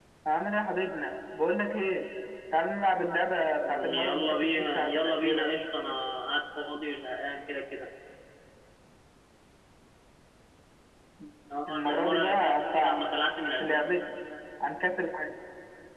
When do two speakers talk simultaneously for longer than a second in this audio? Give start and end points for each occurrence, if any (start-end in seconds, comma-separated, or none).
3.6-5.5, 11.7-13.0